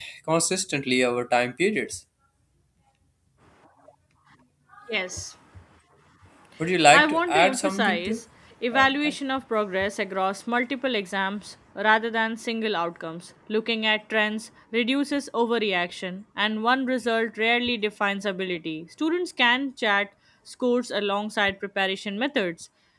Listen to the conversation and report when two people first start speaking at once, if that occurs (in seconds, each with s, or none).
6.9 s